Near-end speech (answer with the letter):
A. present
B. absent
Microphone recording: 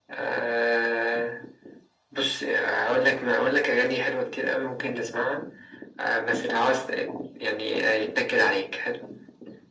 B